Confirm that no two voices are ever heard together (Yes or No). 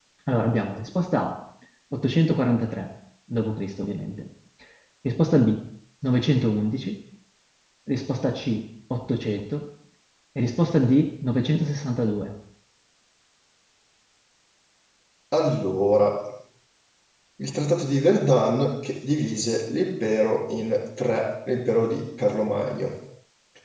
Yes